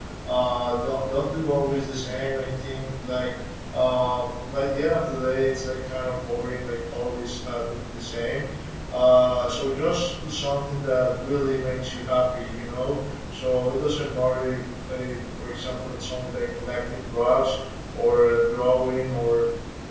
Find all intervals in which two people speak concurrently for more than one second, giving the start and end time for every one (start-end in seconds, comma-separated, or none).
none